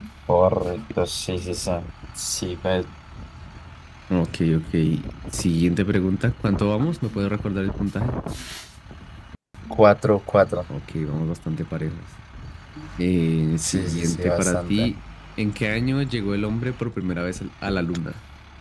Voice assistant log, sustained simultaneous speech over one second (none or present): present